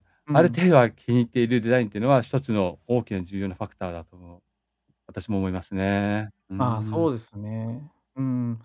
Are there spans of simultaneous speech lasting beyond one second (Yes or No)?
No